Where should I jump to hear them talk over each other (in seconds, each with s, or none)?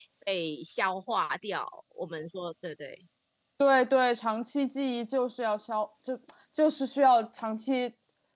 none